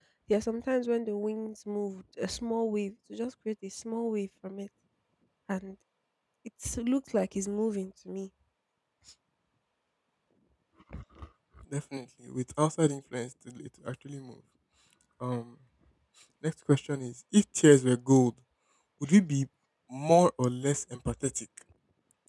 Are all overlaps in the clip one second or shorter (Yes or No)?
Yes